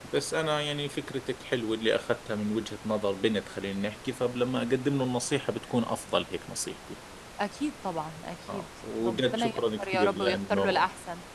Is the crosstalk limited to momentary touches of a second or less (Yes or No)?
No